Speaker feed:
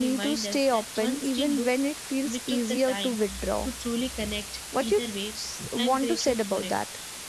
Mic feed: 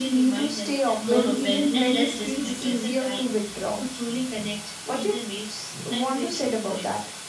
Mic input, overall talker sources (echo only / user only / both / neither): both